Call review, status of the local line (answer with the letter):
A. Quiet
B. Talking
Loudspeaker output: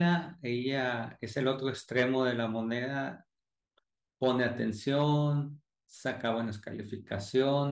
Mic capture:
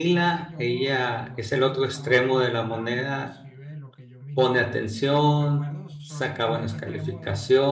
B